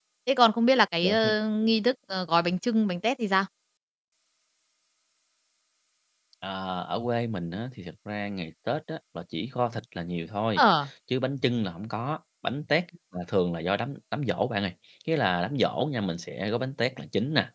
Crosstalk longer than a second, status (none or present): none